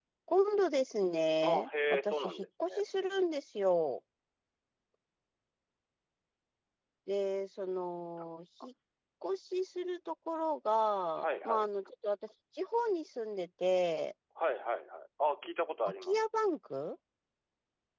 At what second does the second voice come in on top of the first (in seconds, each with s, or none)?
1.4 s